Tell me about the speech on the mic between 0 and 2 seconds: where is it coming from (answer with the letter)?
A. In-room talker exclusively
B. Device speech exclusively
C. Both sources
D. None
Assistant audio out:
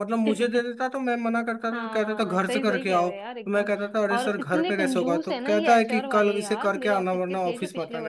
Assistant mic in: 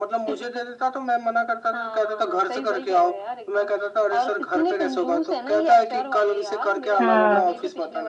B